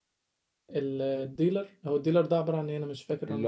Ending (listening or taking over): taking over